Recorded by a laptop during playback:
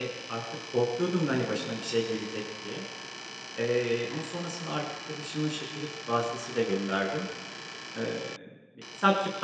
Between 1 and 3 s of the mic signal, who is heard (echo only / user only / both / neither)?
user only